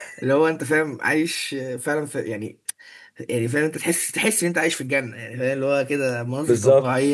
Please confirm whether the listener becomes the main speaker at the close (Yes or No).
No